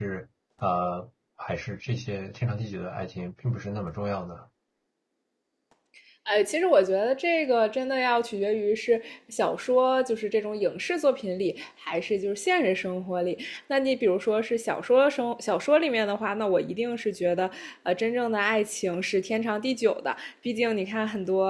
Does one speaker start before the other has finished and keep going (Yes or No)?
No